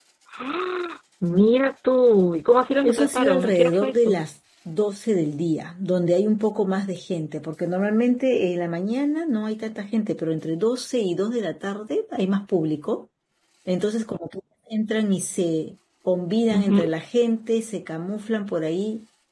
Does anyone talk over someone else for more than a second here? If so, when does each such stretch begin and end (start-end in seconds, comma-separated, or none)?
2.8-4.2